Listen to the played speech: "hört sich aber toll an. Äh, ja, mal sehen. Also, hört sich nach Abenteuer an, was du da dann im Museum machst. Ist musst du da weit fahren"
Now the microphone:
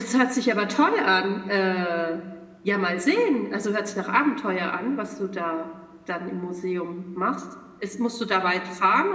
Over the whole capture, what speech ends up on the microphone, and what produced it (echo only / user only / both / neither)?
echo only